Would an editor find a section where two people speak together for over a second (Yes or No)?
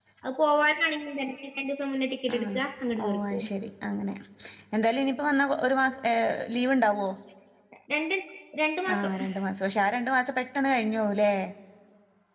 No